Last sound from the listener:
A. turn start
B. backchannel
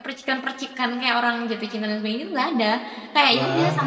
B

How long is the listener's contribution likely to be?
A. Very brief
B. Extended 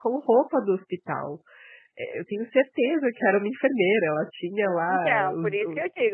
B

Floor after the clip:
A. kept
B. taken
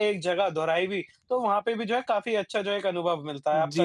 B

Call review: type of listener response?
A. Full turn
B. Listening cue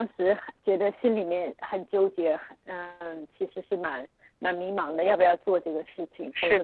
B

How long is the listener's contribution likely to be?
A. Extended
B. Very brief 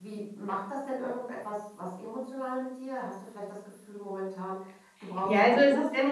A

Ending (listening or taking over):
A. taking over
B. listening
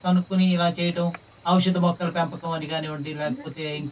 A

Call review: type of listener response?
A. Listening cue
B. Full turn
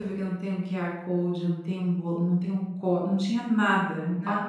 A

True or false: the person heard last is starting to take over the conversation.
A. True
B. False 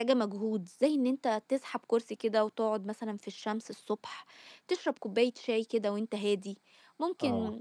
B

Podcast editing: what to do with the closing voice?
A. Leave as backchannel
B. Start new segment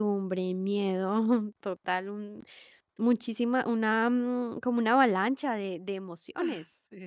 B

